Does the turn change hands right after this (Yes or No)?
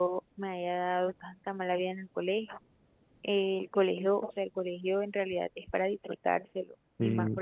No